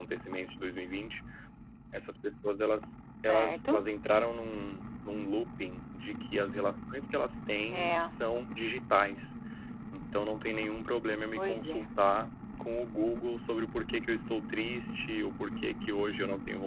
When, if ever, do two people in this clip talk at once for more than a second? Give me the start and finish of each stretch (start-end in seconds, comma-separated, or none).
none